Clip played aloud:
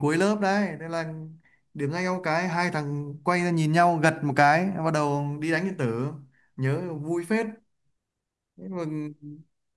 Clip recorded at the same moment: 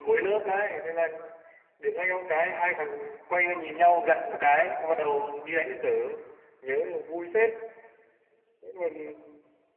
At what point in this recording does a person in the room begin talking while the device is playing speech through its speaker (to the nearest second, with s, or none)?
none